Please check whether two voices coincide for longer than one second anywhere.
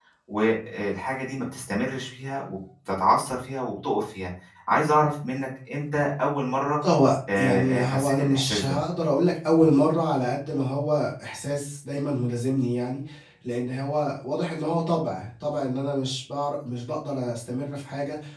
Yes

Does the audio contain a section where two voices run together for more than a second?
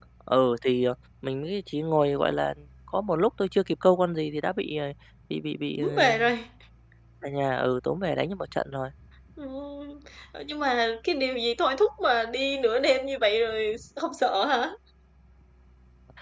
No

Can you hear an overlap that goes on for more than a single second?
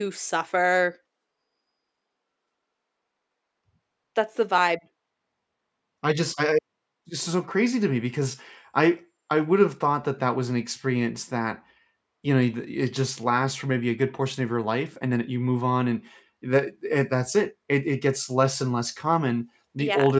No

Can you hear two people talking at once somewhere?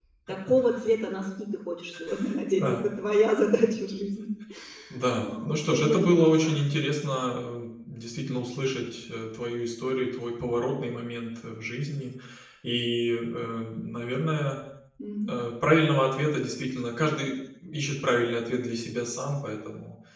Yes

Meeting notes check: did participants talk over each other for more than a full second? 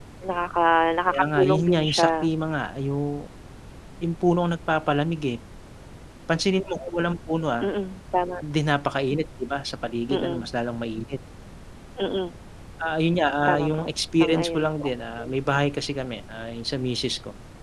Yes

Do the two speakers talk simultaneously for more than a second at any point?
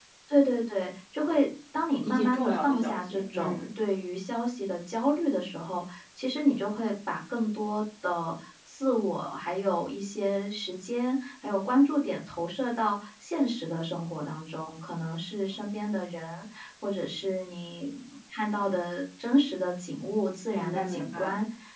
Yes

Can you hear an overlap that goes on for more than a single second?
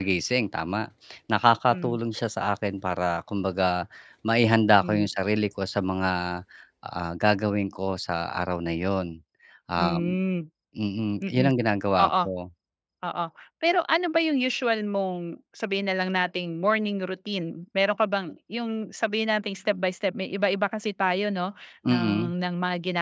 No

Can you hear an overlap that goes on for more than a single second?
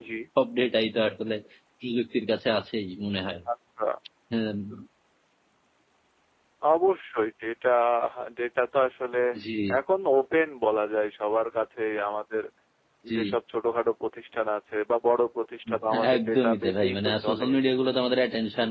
Yes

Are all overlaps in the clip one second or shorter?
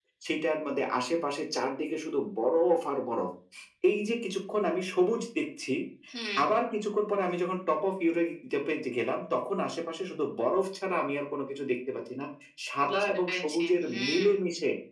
No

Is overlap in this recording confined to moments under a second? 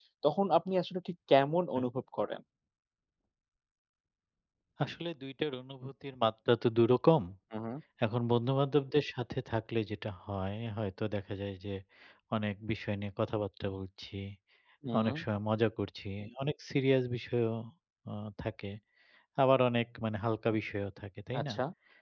Yes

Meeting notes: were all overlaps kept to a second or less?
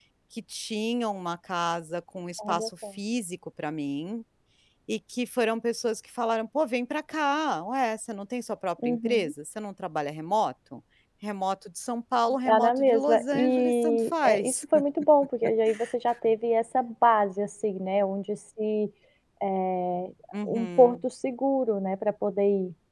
No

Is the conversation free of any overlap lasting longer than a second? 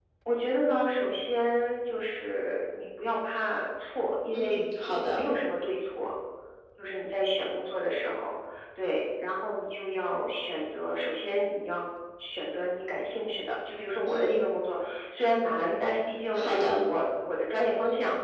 Yes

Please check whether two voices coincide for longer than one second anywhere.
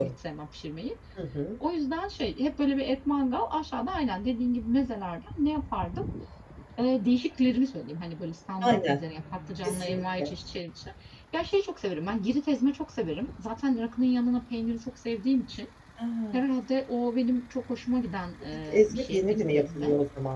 Yes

